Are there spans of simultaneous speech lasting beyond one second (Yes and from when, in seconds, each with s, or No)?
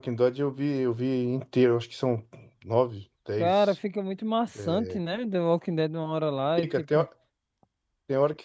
No